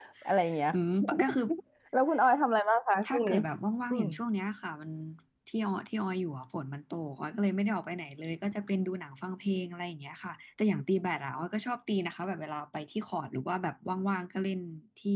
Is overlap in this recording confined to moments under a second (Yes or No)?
Yes